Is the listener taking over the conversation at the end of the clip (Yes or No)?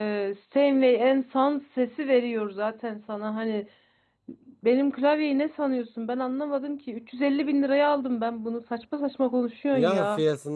Yes